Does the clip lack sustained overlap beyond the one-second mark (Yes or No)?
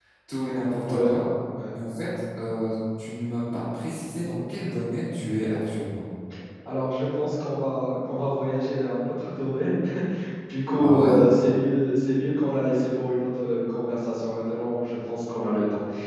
Yes